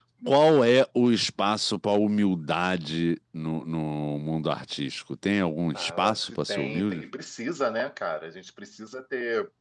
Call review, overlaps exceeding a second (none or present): present